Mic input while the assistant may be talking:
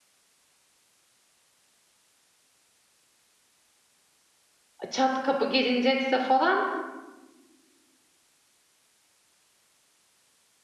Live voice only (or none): çat kapı gelinecekse falan,